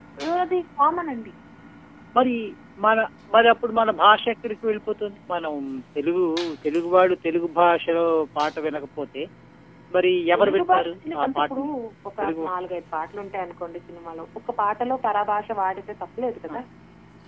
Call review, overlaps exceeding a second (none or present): present